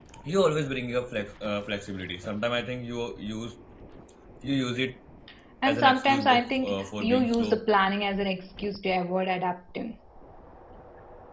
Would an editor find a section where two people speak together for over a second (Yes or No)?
Yes